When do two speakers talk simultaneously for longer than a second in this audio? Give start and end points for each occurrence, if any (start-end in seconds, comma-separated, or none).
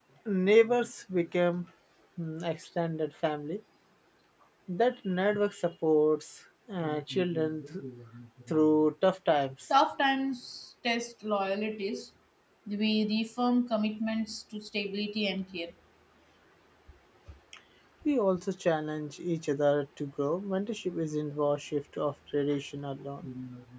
none